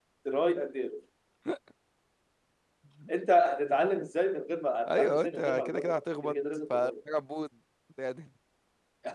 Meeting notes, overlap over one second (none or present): present